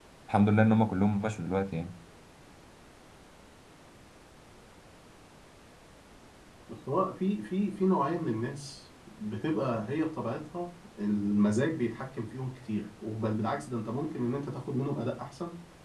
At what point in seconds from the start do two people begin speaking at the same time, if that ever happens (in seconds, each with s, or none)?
none